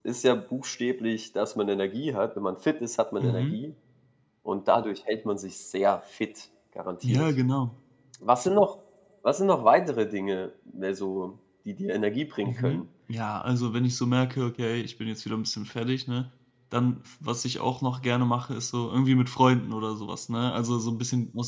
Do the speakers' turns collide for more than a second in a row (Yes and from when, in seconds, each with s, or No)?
No